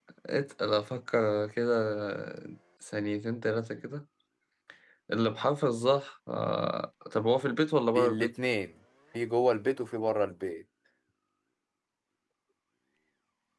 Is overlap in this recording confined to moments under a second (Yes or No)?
Yes